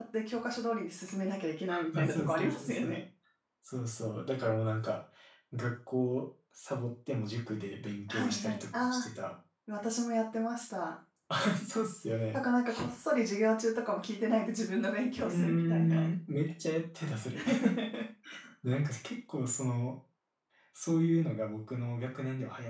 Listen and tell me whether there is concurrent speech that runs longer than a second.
Yes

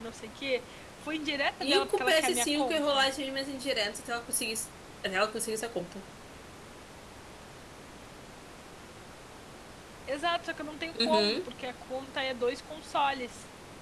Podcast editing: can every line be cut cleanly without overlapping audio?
No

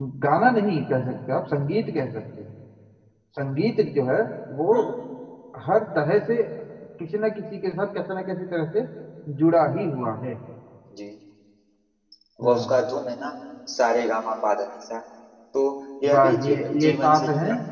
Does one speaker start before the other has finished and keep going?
Yes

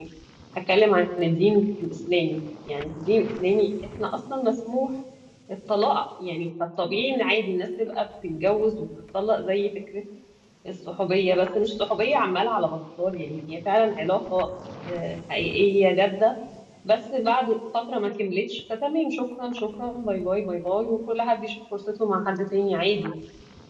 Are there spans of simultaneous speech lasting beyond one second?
No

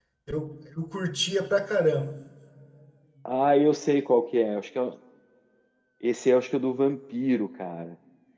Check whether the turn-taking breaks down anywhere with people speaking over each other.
No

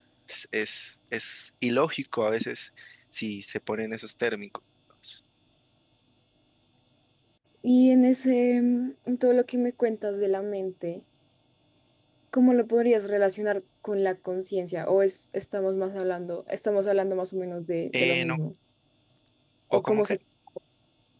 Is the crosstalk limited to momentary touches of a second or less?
Yes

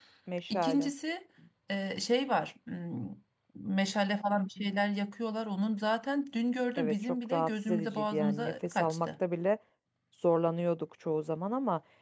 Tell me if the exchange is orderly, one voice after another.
No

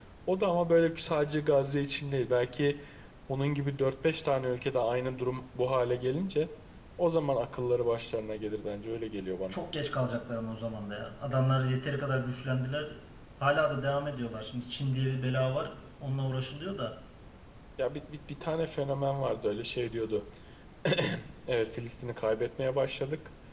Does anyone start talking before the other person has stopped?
No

